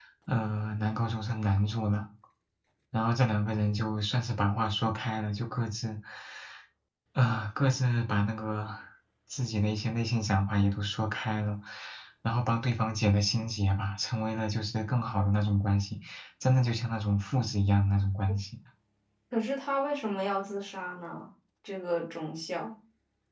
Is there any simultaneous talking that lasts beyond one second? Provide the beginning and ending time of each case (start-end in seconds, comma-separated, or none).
none